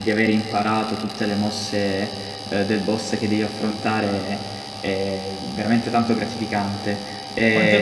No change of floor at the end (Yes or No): No